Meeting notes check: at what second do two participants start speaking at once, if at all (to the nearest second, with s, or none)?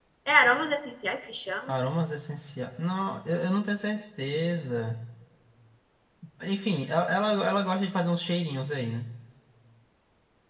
none